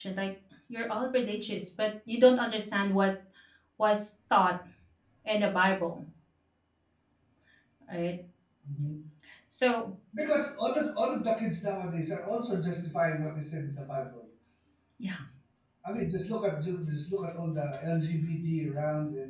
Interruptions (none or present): none